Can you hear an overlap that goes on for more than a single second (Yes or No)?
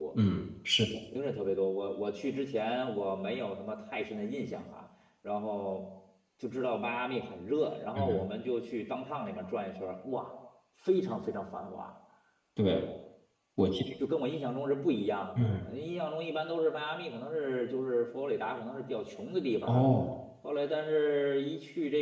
No